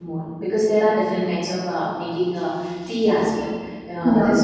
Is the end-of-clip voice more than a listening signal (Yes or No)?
No